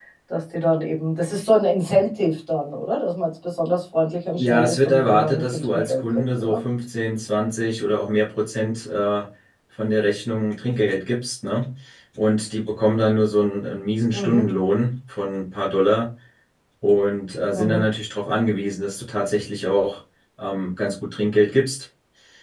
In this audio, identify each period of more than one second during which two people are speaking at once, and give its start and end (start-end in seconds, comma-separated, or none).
4.3-6.6